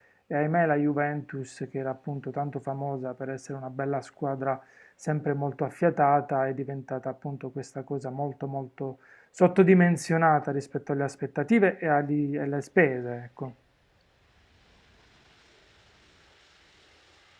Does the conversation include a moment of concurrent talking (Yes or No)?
No